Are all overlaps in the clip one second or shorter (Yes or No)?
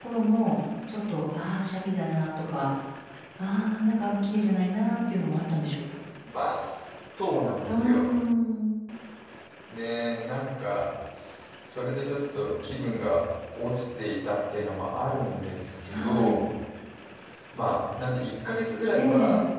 Yes